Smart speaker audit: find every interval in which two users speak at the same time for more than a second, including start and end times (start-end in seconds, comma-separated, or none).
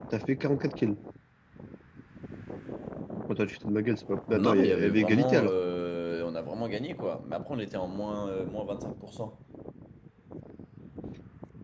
4.3-5.5